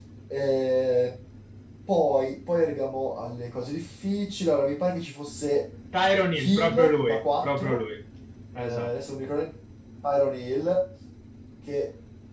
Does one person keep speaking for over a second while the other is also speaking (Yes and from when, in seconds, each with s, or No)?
Yes, from 6.4 s